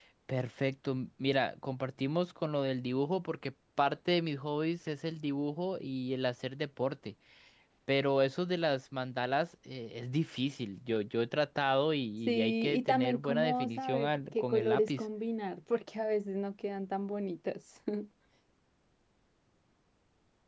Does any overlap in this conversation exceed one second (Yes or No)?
Yes